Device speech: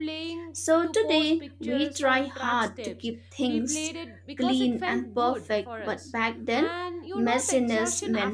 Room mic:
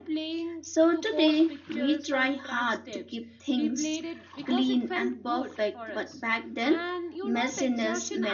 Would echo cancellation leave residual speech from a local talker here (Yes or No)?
No